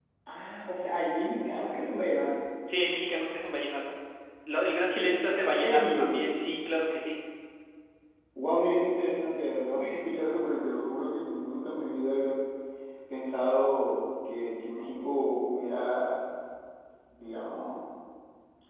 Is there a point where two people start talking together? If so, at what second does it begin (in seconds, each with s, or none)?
4.9 s